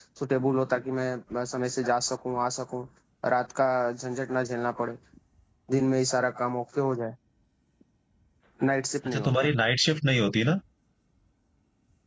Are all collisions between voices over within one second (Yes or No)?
Yes